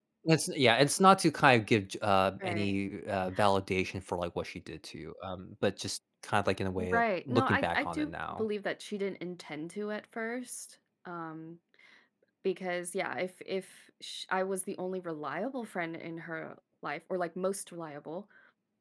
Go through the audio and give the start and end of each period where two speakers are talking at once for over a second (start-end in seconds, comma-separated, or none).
6.9-8.4